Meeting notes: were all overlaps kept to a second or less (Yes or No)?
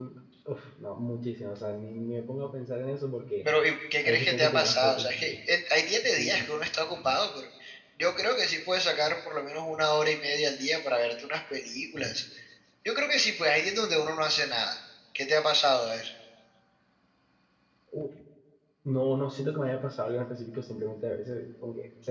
No